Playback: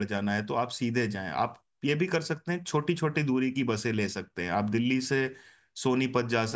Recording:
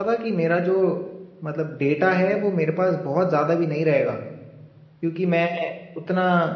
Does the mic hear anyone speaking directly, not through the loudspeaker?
Yes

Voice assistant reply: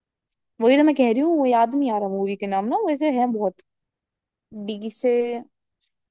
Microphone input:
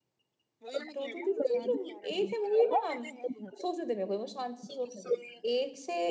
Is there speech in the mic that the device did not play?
Yes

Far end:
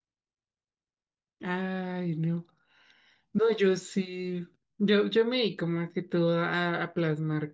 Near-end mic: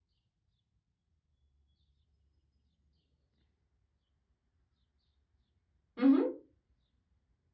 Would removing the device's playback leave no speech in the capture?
No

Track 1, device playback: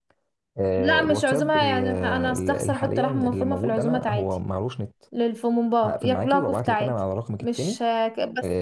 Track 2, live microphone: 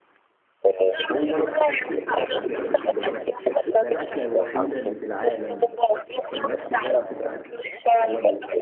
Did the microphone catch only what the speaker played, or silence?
No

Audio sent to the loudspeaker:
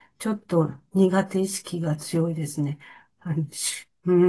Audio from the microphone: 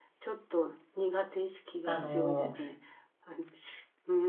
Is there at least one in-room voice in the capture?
Yes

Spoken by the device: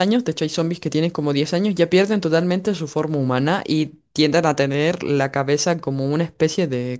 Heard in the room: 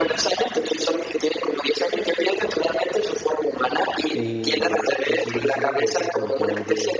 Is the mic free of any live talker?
No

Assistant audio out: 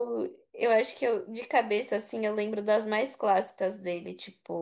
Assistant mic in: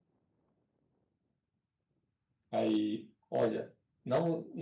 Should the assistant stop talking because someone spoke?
Yes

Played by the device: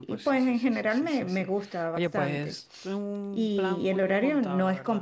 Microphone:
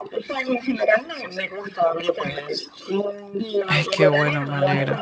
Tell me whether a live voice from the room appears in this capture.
Yes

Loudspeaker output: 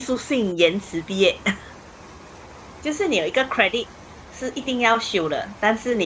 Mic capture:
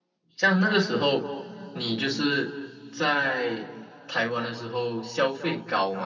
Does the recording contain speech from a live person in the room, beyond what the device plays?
Yes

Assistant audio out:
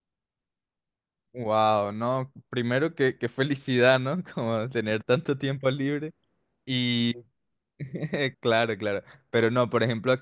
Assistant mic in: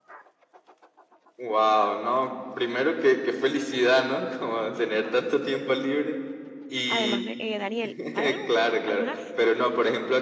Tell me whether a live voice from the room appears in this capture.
Yes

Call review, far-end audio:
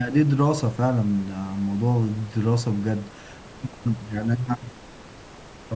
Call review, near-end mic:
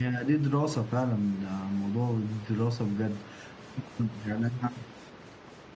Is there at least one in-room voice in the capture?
No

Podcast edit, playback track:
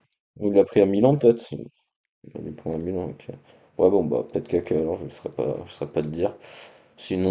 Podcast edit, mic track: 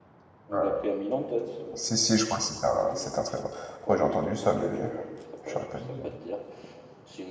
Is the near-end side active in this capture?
Yes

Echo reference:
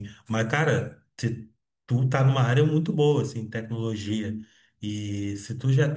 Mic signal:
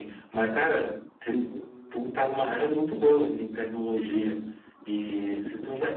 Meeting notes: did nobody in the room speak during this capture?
No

